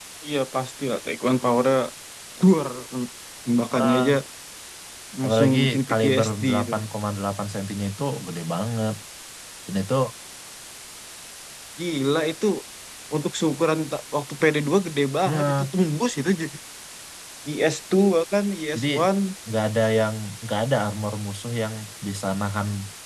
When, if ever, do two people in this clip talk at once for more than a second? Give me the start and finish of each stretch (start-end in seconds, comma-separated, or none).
5.2-6.7